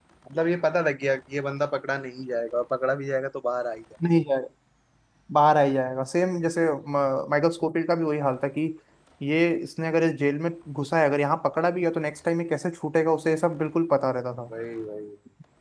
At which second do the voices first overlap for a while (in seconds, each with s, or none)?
none